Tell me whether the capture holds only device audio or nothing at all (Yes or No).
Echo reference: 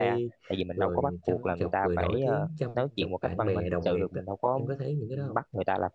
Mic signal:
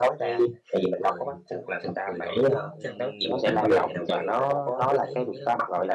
No